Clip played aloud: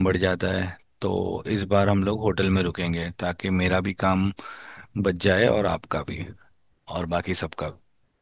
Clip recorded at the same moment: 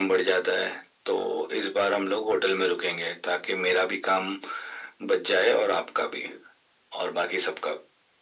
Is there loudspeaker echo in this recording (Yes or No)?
Yes